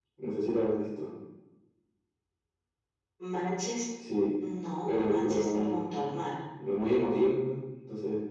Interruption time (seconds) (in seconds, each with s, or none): 4.9 s